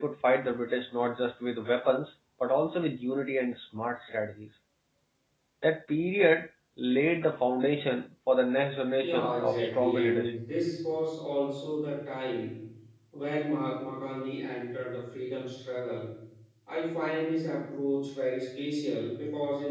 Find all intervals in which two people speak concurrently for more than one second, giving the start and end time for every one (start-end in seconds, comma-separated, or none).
9.0-10.4